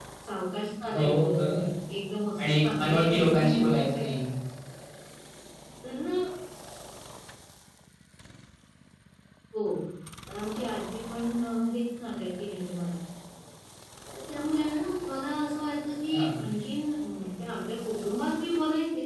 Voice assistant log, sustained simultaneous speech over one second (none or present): present